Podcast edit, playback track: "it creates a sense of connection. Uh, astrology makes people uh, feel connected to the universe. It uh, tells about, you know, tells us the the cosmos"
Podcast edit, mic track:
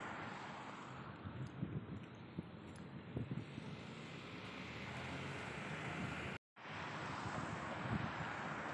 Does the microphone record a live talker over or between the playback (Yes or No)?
No